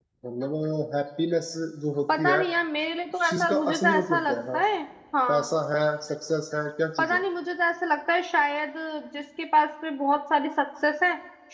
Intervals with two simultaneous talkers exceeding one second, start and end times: 3.2-4.6

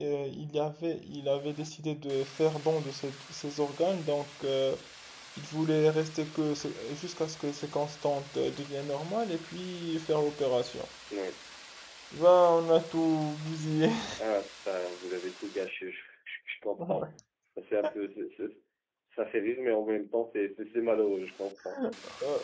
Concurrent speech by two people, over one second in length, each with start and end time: none

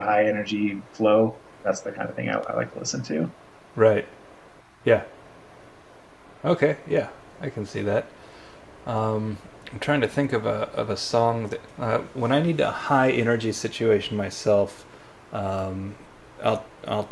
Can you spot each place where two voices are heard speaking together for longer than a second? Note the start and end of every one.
none

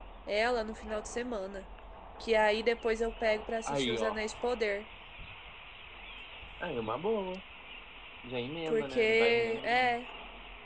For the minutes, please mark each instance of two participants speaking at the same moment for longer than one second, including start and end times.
8.7-10.0

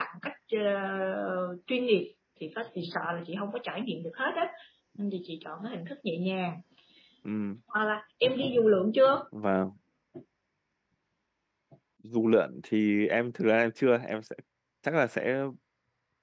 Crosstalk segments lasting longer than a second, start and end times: none

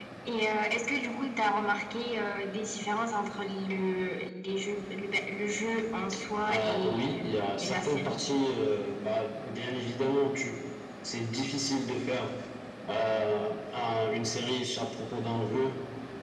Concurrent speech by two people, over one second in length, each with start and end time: 6.5-8.2

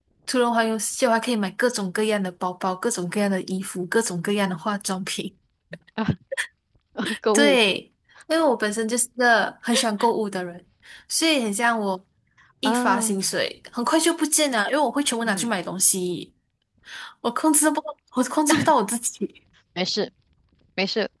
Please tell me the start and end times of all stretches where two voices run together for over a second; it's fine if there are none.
none

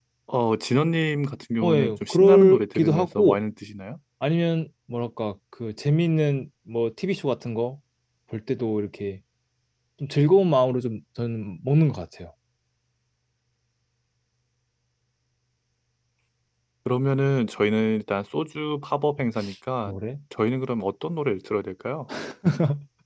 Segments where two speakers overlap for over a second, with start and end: 1.6-3.4

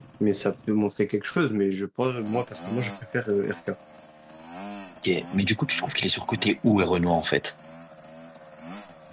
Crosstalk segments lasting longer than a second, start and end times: none

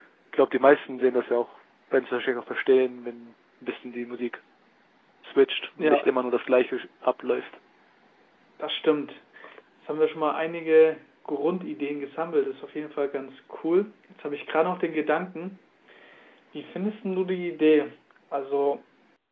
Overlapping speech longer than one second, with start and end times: none

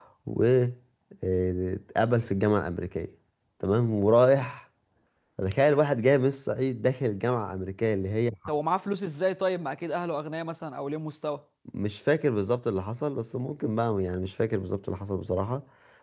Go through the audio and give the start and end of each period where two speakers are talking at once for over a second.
none

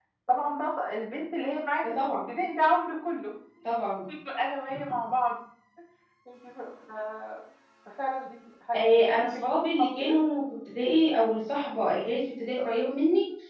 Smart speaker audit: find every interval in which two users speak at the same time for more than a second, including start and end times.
8.7-10.2

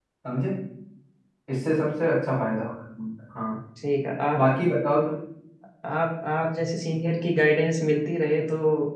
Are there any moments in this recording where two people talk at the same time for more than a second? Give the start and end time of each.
none

